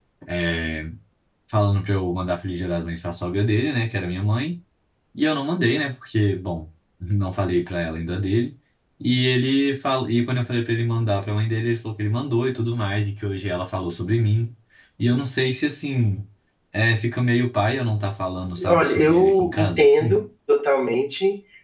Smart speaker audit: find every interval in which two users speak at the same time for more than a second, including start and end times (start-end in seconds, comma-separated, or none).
18.7-20.2